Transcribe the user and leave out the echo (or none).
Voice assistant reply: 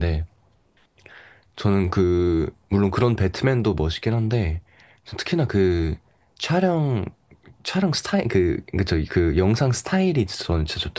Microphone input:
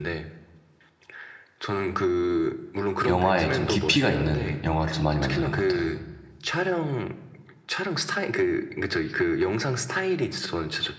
영화에 좀 깊이가 있는 영화를 좀 많이 만드는 것 같아요.